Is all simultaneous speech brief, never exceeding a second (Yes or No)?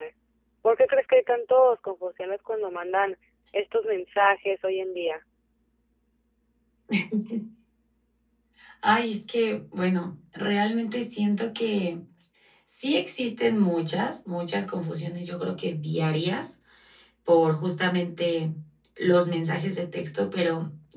Yes